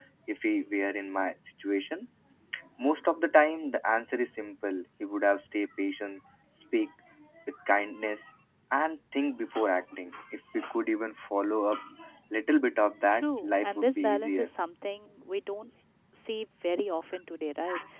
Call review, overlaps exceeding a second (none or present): present